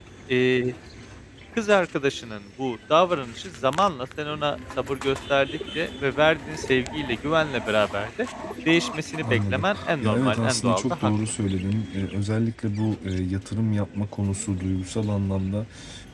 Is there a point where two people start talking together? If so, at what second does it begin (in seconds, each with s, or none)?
9.2 s